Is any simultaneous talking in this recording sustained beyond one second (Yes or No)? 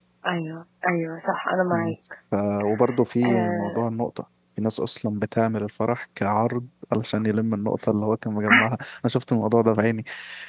No